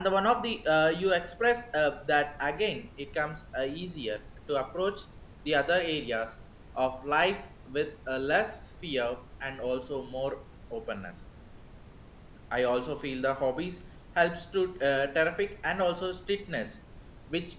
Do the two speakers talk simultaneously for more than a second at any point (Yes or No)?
No